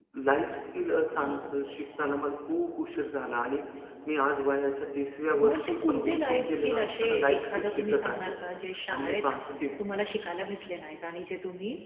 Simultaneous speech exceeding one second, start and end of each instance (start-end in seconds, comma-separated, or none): 5.5-8.3